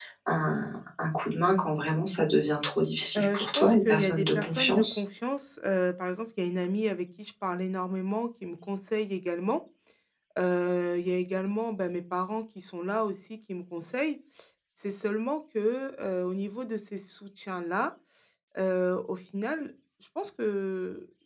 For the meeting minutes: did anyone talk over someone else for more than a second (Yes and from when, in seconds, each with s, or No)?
Yes, from 3.2 s